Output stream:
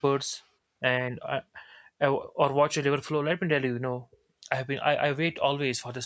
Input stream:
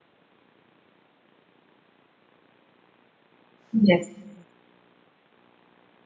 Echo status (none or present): none